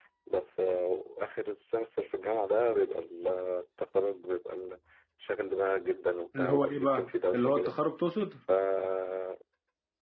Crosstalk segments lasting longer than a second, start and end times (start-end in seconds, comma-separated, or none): 6.4-7.7